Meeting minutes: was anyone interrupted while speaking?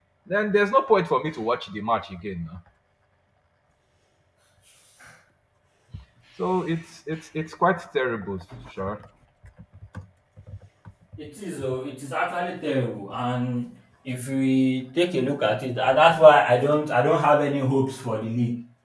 No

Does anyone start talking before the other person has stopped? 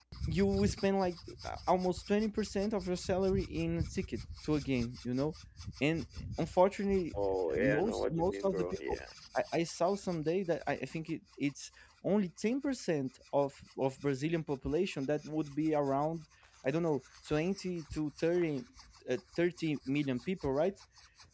Yes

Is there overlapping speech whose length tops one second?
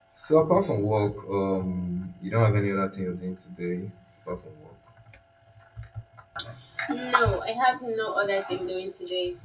No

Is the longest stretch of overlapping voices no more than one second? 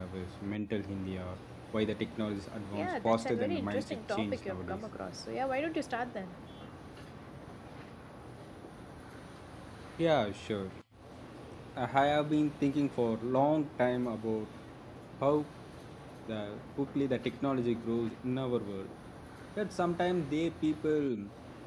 No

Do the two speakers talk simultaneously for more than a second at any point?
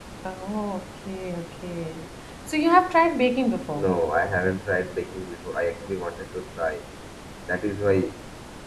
No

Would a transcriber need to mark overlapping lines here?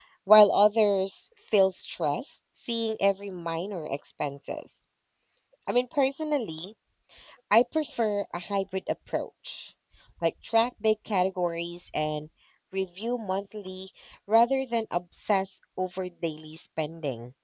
No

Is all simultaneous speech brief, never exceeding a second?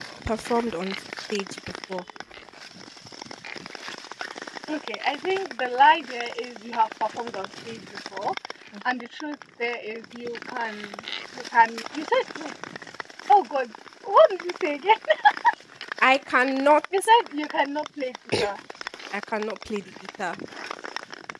Yes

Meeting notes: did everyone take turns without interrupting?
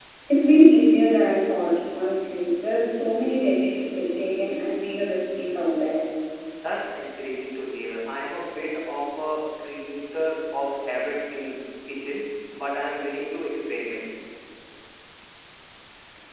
Yes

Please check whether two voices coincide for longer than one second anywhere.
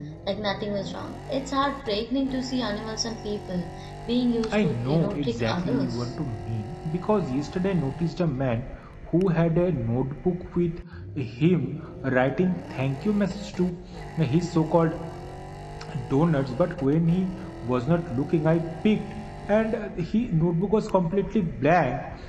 Yes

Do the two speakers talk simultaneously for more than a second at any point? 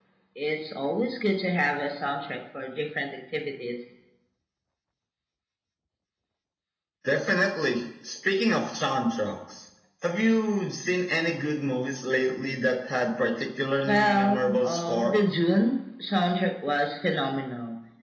Yes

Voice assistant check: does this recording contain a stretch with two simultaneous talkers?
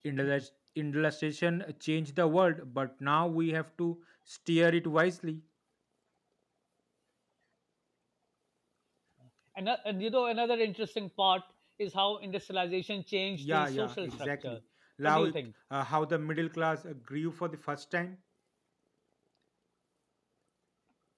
Yes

